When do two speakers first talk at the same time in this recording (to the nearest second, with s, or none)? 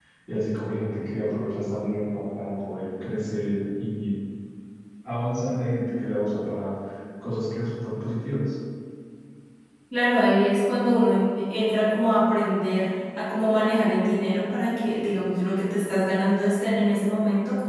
none